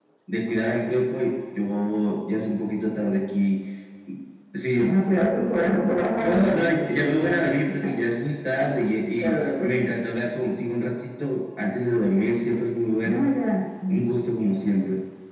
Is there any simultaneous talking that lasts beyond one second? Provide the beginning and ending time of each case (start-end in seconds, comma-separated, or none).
6.2-7.5